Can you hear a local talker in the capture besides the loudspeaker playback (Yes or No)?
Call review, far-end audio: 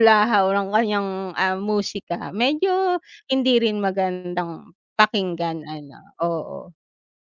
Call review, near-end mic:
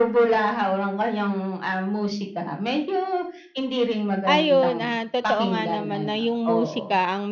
Yes